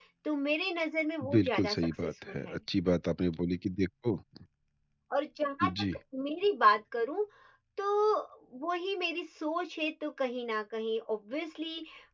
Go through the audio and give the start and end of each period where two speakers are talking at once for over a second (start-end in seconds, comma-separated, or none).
1.3-2.6